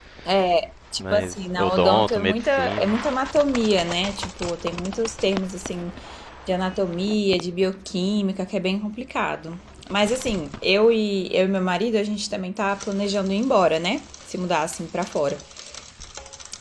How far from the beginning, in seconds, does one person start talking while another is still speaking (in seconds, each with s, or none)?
1.0 s